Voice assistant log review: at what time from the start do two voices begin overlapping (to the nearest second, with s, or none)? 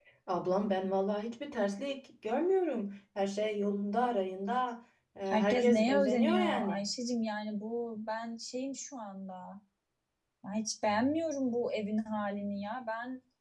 5 s